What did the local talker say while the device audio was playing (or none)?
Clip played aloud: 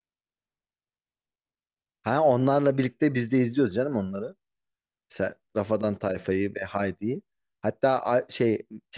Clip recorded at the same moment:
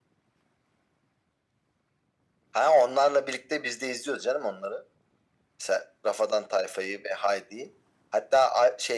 none